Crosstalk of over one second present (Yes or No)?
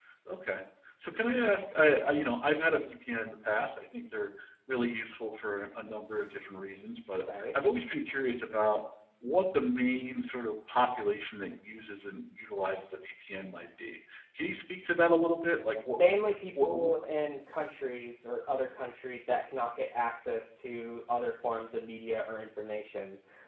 No